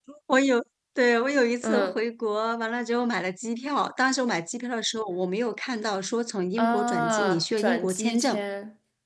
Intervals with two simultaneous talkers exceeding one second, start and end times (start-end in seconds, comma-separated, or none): 6.6-8.4